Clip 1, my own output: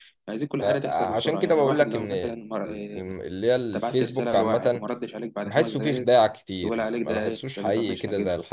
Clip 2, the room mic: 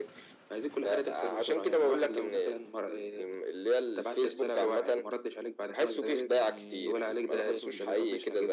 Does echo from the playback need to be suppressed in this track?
Yes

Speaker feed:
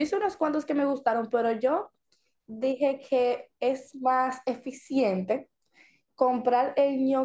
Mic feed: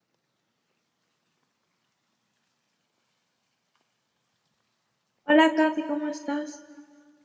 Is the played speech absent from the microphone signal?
Yes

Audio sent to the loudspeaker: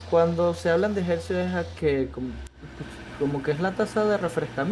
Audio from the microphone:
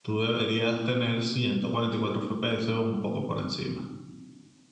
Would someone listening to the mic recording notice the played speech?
No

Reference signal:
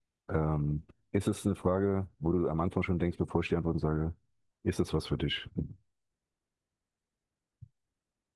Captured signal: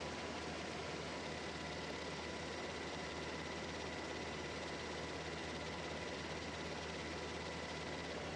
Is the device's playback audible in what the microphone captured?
No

